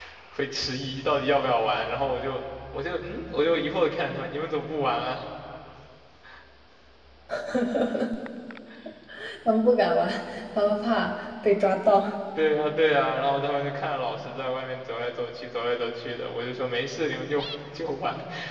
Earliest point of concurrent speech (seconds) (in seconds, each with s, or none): none